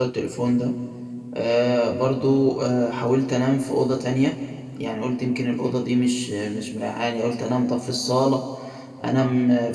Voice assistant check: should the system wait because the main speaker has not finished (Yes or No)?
Yes